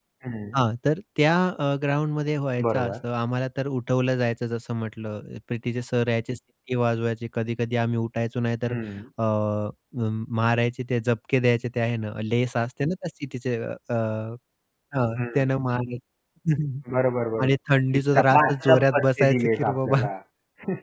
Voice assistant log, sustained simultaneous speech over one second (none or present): present